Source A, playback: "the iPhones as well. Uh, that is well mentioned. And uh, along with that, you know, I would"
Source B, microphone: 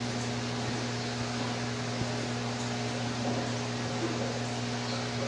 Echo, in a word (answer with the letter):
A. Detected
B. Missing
B